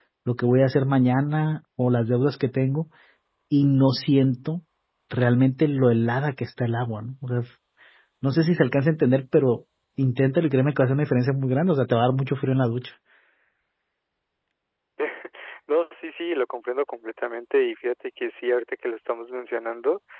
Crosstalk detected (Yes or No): No